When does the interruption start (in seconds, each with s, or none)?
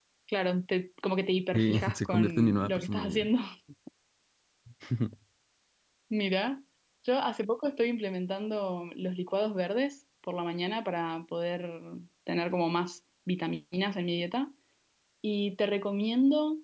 1.5 s